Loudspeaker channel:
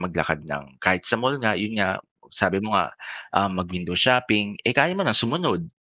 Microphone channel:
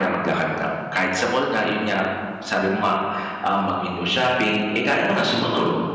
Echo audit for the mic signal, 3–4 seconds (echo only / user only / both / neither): echo only